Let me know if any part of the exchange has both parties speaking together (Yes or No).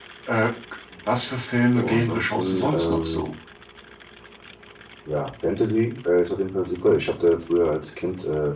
Yes